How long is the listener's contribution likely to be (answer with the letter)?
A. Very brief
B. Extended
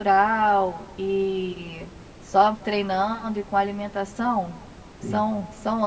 A